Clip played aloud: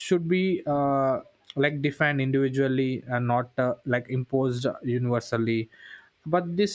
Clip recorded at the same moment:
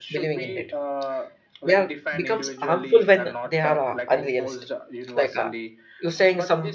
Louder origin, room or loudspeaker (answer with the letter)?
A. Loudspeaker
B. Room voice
B